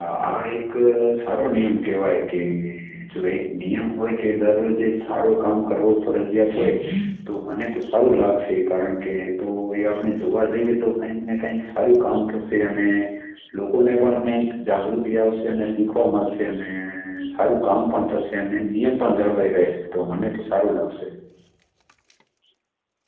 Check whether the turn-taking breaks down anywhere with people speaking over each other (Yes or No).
No